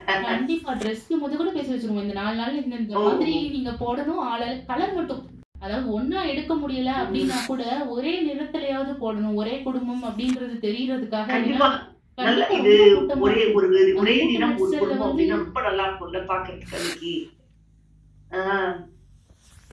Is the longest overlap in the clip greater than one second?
Yes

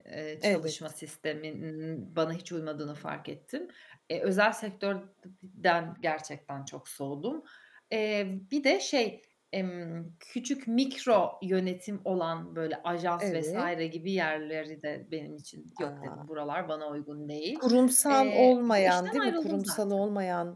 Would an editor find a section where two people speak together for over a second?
Yes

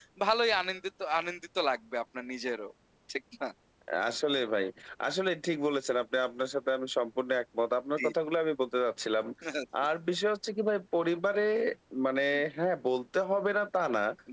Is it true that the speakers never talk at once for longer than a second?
Yes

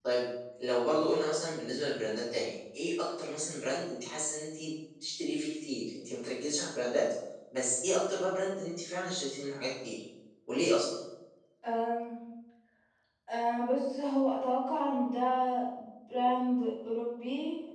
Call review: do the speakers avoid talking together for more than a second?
Yes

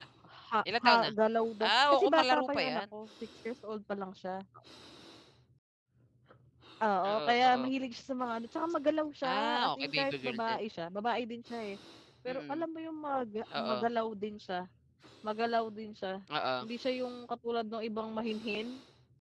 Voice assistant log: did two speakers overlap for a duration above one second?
Yes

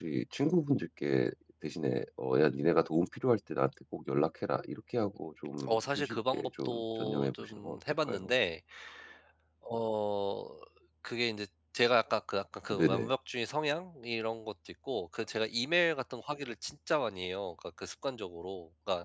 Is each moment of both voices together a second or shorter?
No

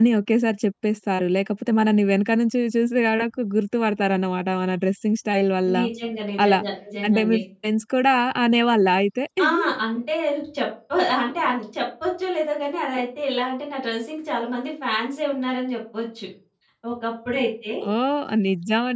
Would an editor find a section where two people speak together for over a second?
No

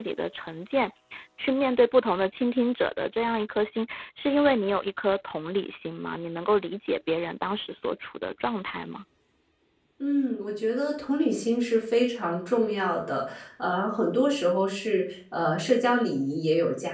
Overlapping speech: No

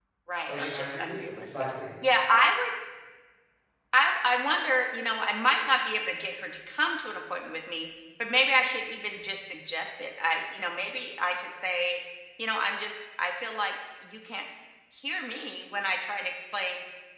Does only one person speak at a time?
No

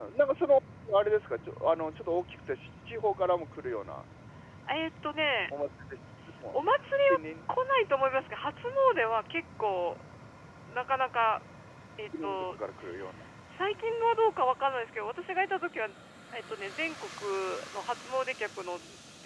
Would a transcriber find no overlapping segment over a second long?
Yes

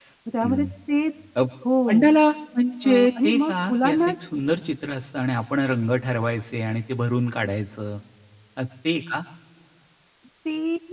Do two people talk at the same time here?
Yes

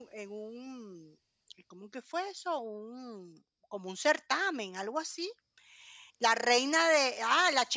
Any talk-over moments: No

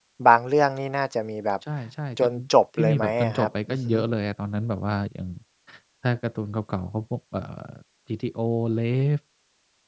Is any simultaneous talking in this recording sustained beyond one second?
Yes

